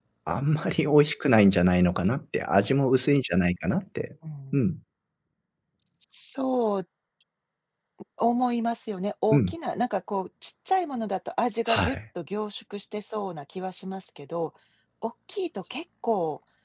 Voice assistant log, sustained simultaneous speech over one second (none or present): none